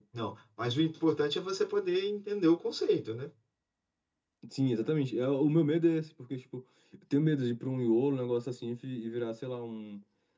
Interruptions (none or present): none